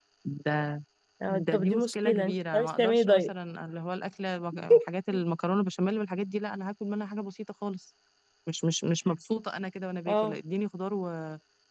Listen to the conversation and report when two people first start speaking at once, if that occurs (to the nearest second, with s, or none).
1 s